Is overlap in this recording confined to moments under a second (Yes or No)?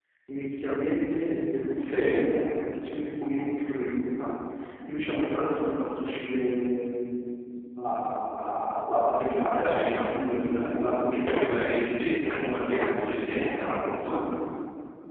No